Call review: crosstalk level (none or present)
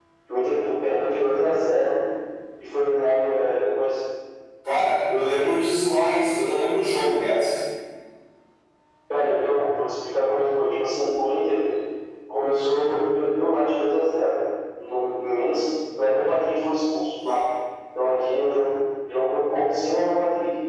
none